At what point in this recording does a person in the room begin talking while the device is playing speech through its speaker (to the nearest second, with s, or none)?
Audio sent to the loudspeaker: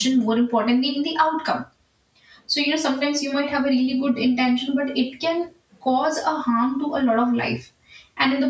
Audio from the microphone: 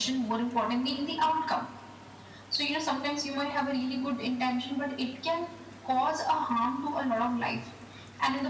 none